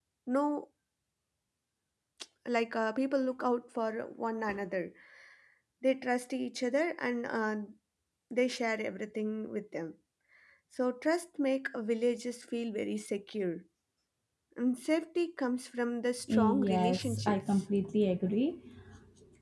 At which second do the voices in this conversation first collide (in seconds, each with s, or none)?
16.3 s